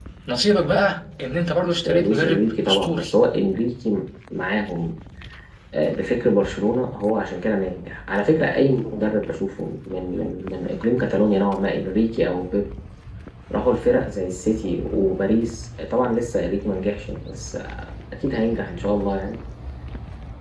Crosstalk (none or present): present